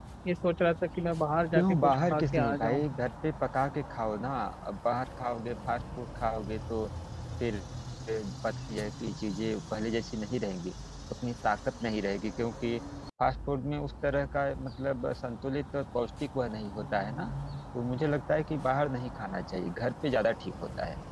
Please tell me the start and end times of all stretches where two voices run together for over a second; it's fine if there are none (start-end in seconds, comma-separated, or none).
1.5-2.8